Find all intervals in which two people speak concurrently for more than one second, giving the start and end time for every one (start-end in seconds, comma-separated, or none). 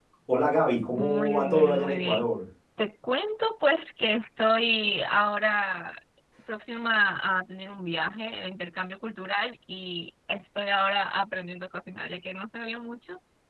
0.9-2.2